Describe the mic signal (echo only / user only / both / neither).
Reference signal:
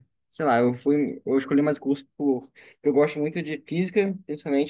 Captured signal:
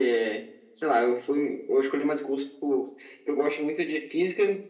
echo only